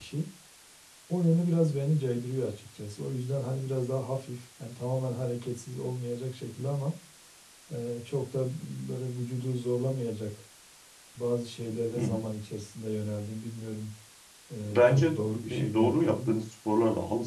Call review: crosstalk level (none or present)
present